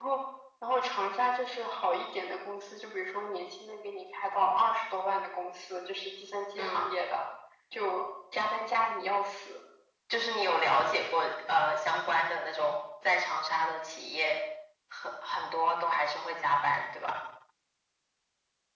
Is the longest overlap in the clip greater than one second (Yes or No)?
No